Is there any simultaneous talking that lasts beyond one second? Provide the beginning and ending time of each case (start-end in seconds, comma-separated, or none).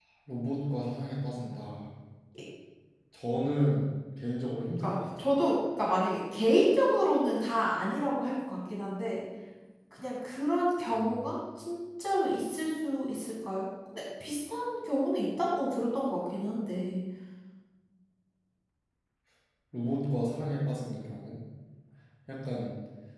none